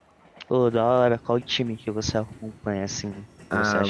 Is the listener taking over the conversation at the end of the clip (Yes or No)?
Yes